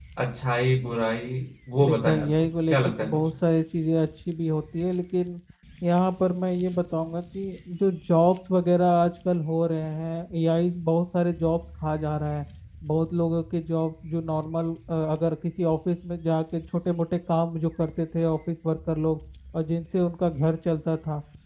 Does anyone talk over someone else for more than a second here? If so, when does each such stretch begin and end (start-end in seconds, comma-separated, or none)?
1.8-3.2